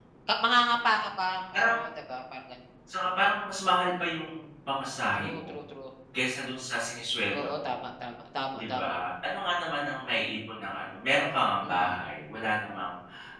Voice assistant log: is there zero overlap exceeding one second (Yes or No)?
Yes